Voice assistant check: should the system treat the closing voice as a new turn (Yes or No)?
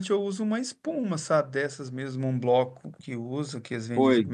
Yes